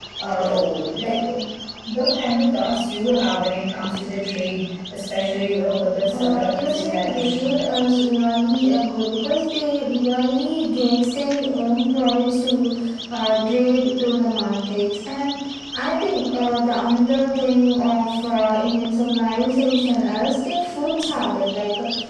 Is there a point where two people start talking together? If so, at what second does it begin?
6.1 s

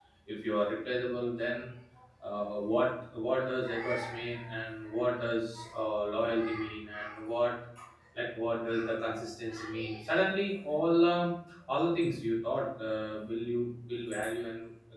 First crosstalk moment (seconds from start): none

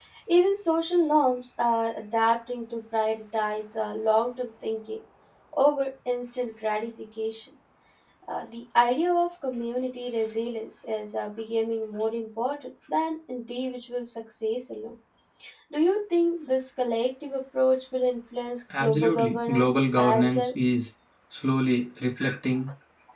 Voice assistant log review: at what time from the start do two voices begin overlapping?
18.7 s

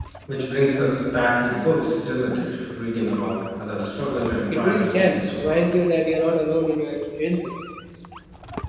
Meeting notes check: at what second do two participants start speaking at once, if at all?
4.5 s

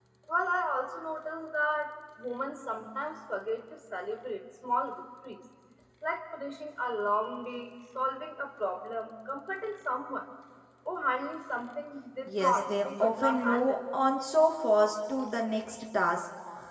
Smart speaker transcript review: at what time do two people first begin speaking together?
12.3 s

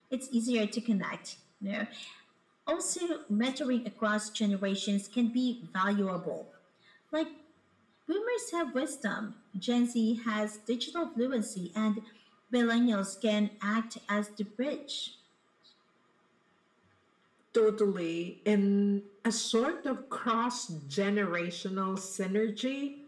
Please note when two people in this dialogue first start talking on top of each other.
none

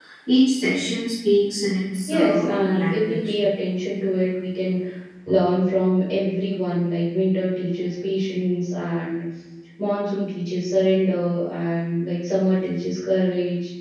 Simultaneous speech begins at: 2.0 s

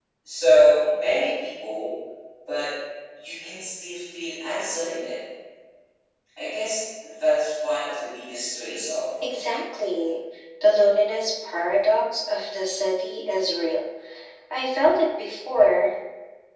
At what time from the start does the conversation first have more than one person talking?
none

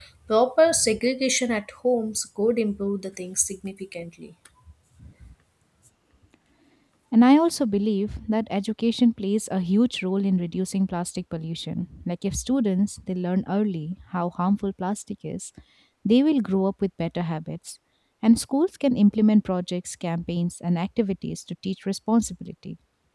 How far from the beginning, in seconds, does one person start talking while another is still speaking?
none

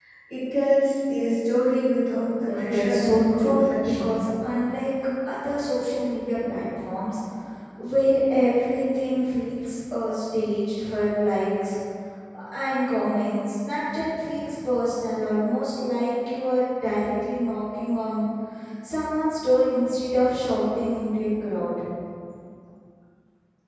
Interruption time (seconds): 2.5 s

